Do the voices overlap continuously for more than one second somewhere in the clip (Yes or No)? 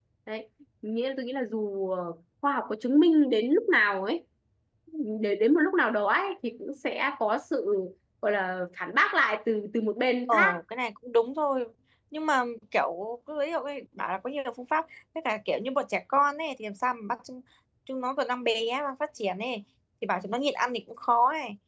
No